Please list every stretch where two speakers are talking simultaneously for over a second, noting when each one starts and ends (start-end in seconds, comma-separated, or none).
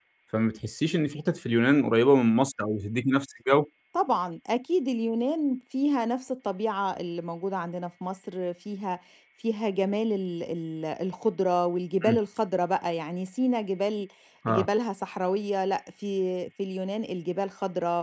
none